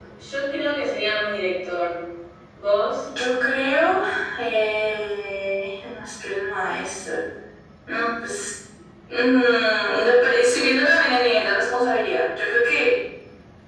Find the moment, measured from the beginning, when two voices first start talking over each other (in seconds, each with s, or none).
none